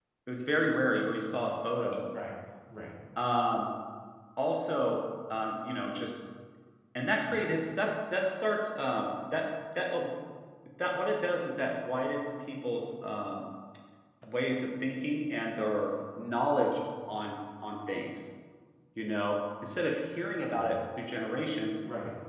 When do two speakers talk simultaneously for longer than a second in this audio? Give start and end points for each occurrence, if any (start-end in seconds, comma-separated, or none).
none